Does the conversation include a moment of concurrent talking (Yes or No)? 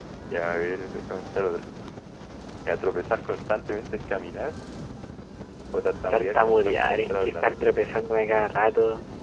Yes